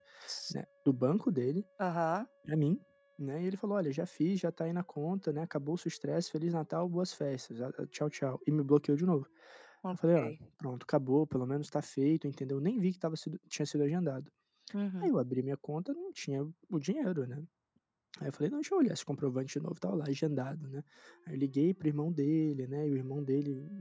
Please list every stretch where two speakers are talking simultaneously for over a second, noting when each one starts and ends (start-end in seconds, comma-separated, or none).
none